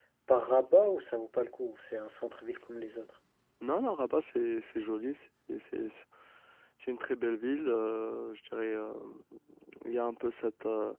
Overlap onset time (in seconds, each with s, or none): none